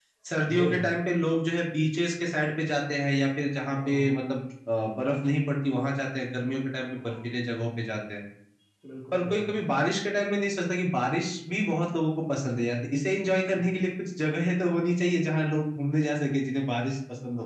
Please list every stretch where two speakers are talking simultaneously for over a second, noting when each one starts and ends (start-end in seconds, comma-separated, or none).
none